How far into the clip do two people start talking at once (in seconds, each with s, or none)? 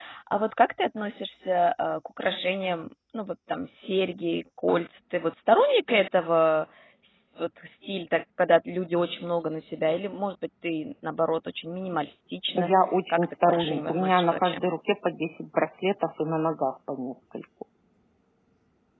13.1 s